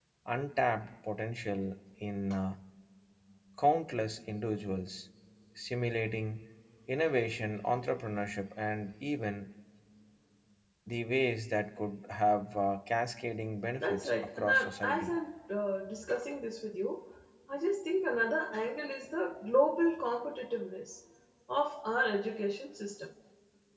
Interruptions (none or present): present